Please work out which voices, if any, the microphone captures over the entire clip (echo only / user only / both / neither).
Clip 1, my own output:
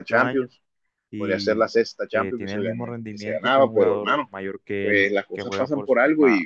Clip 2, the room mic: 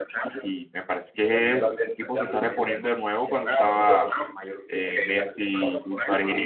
both